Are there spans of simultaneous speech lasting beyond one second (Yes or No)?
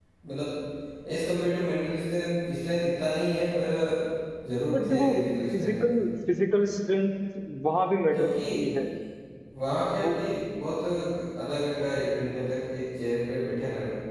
Yes